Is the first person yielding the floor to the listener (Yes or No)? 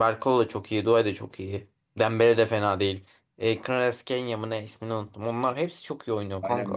Yes